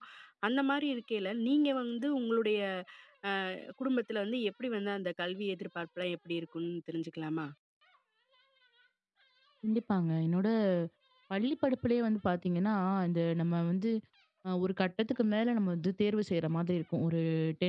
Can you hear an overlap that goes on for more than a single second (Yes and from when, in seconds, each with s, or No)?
No